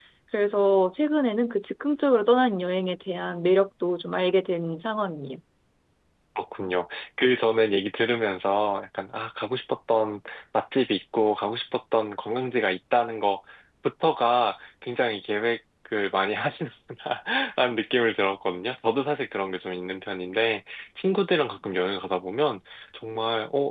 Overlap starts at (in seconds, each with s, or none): none